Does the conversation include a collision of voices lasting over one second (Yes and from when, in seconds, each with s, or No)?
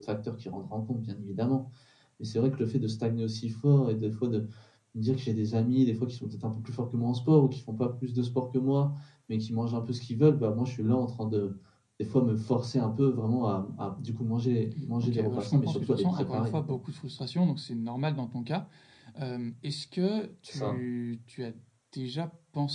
Yes, from 15.0 s